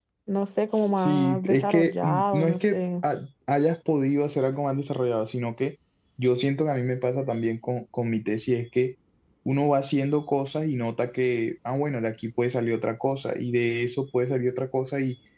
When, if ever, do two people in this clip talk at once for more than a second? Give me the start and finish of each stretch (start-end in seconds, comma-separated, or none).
0.7-2.8